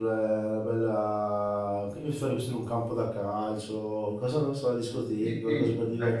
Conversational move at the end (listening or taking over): taking over